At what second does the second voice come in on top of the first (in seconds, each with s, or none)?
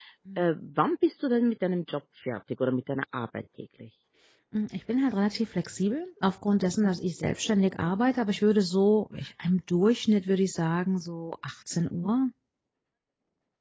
none